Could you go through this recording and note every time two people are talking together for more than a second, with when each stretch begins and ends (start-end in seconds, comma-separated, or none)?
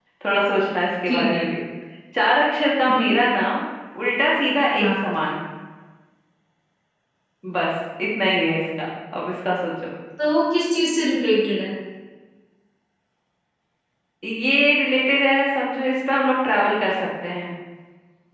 none